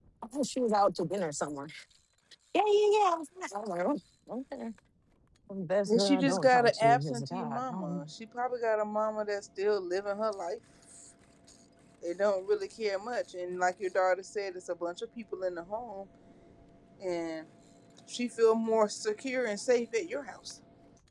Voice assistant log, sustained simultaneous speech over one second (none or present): present